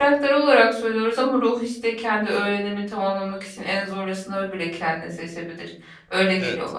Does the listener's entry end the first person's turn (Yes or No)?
Yes